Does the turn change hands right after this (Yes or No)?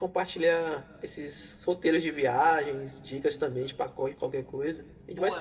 Yes